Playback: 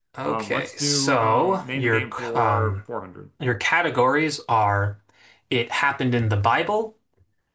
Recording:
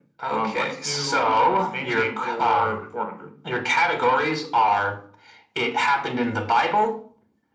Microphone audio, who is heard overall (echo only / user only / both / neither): echo only